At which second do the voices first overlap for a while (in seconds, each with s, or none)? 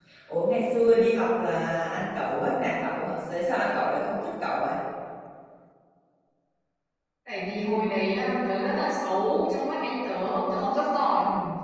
none